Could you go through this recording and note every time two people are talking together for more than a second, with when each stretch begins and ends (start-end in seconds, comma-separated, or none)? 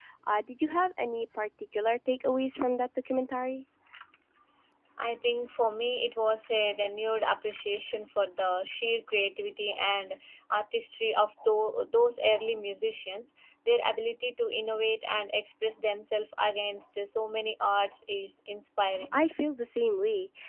none